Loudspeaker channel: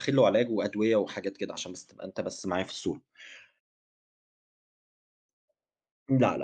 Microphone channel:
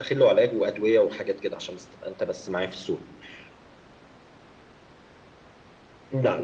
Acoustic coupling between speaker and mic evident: Yes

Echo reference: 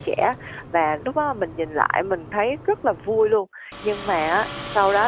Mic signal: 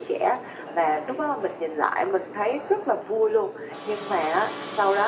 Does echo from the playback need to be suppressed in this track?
Yes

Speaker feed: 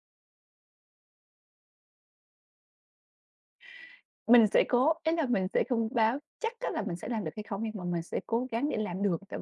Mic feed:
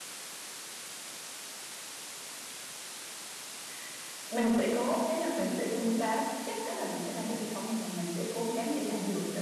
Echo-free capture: No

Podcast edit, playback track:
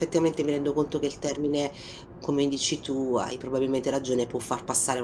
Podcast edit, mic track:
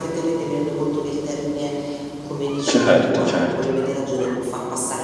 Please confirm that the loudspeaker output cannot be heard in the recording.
No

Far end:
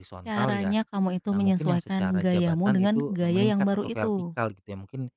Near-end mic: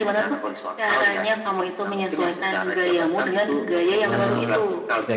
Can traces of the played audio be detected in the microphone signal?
Yes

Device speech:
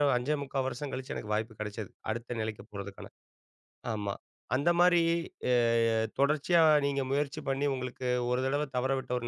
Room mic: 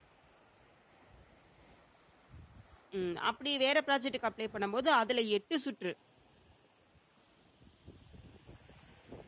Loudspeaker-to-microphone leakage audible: No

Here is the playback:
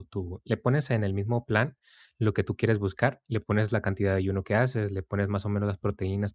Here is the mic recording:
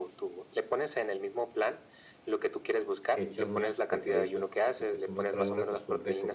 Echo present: Yes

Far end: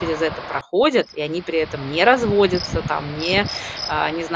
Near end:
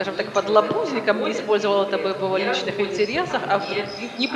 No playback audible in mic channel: No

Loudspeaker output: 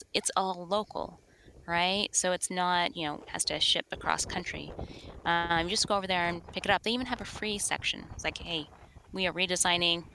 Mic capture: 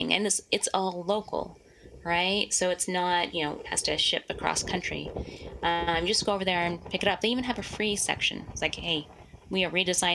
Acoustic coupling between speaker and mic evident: Yes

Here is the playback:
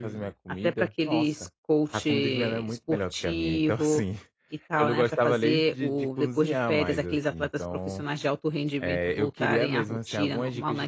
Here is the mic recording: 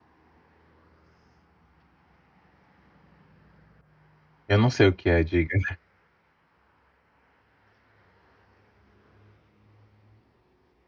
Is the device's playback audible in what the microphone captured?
No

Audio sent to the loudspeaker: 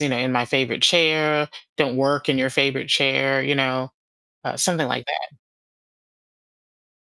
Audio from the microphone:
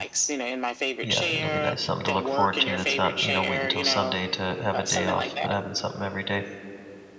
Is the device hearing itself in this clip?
Yes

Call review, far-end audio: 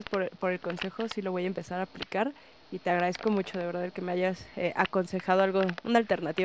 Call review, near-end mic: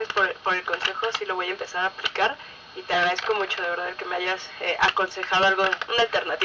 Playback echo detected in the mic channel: Yes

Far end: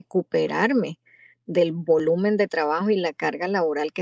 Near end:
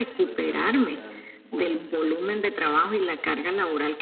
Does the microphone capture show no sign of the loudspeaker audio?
No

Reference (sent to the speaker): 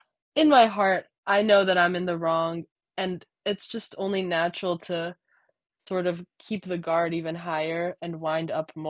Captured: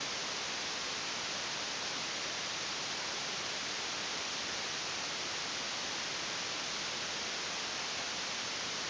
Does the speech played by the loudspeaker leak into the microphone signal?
No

